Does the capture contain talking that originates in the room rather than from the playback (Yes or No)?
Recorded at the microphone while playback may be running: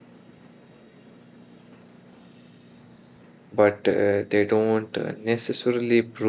Yes